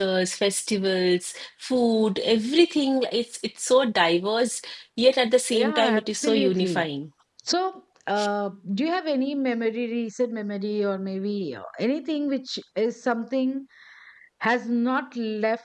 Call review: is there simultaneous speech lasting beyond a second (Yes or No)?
Yes